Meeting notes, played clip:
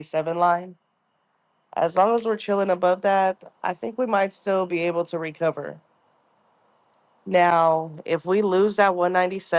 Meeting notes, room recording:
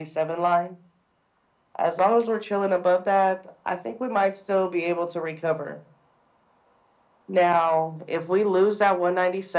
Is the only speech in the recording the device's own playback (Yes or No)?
Yes